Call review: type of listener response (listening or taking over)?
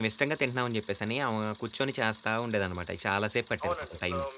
taking over